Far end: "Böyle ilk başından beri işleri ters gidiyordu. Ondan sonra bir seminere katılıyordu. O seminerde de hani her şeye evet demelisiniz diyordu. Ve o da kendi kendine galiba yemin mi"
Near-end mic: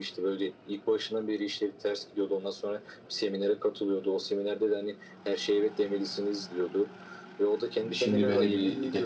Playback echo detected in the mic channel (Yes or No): Yes